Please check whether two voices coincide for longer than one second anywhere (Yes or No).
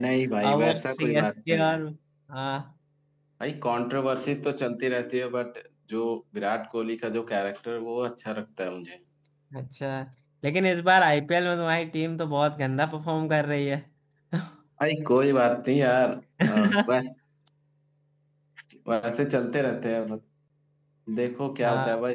Yes